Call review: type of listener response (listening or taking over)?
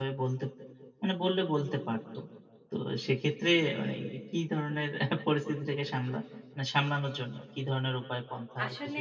taking over